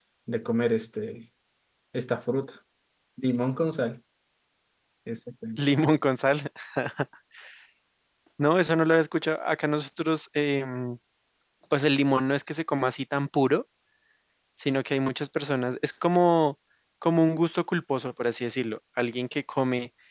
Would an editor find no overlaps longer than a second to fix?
Yes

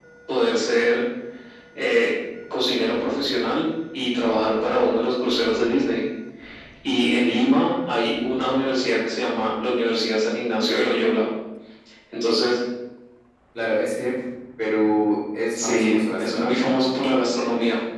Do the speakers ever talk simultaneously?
Yes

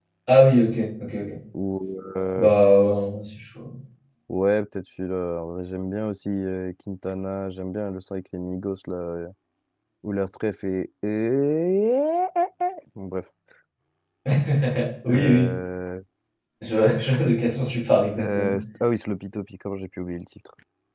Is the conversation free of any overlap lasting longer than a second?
Yes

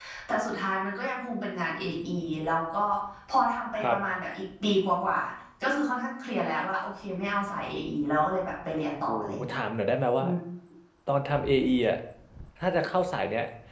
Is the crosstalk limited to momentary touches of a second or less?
Yes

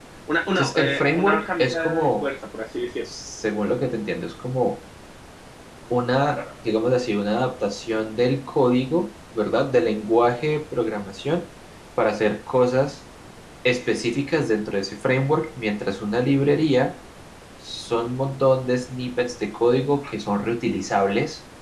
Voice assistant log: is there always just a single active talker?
No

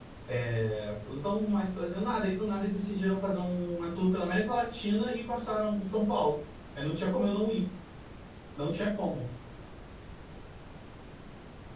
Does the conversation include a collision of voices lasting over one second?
No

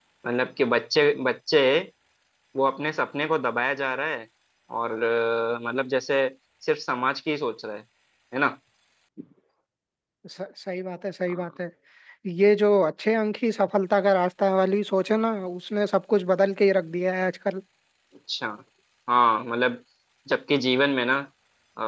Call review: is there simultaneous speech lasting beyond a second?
No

